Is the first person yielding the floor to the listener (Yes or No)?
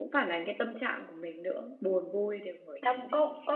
Yes